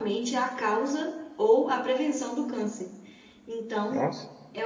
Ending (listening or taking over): listening